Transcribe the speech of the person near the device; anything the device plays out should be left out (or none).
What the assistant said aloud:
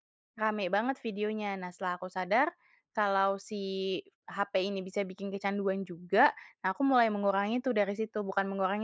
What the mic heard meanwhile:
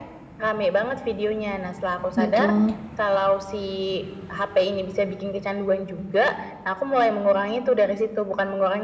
Betul.